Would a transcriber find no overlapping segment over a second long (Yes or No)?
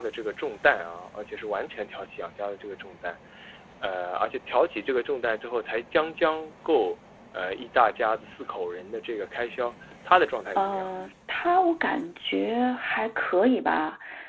Yes